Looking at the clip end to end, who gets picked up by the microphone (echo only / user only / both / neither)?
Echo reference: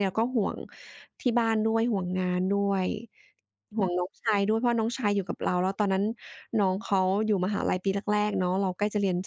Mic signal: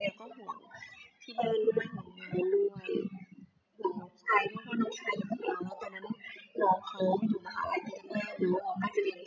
echo only